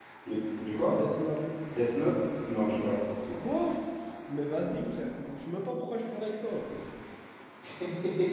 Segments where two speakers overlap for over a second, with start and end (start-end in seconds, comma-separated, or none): none